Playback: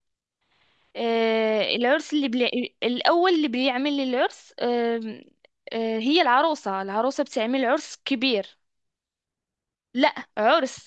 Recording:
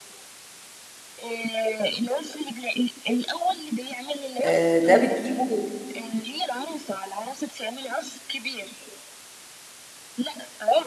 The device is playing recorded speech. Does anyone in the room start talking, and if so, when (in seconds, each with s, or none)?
4.4 s